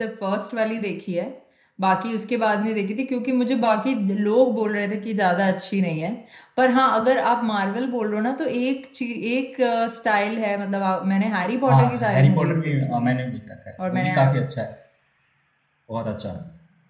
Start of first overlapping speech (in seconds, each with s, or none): 11.7 s